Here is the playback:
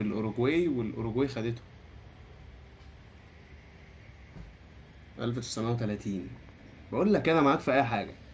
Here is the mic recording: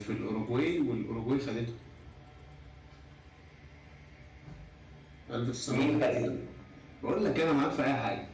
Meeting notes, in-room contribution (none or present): present